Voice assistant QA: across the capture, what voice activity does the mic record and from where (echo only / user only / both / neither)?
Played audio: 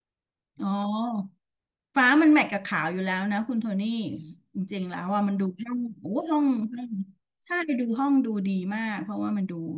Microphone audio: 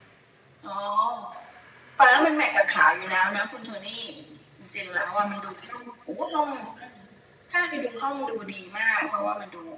echo only